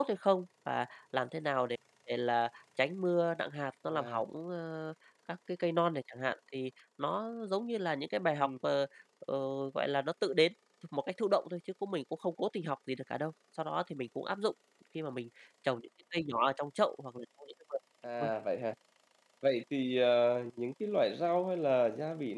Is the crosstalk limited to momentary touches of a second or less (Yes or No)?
Yes